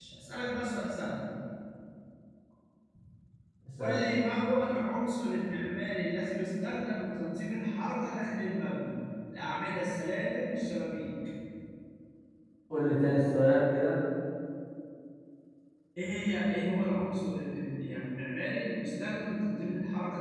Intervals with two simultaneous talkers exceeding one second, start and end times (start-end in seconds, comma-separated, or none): none